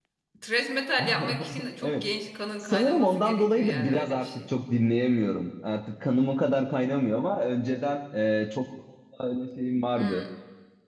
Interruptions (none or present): present